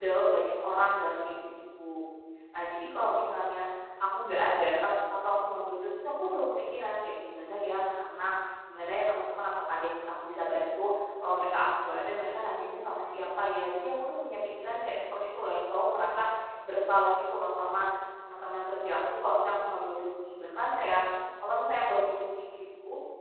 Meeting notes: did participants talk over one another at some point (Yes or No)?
No